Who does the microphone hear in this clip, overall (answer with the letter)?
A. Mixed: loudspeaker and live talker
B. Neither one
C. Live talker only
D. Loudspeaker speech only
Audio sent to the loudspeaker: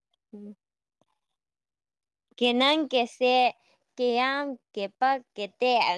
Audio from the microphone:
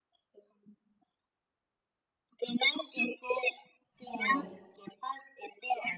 A